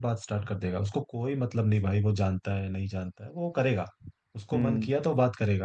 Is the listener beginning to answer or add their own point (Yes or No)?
No